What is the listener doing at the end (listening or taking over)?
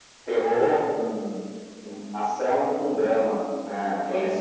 taking over